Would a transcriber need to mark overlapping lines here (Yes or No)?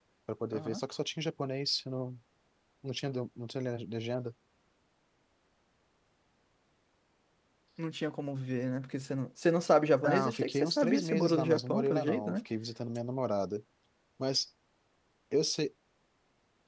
Yes